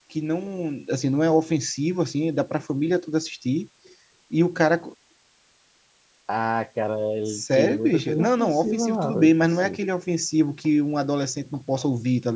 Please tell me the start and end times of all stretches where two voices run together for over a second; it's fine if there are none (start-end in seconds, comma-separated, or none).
7.3-9.8